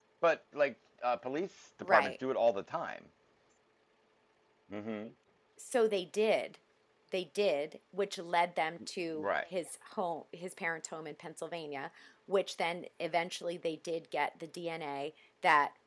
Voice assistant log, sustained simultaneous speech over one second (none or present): none